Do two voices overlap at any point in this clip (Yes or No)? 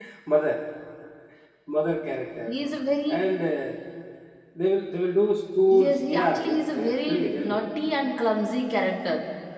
Yes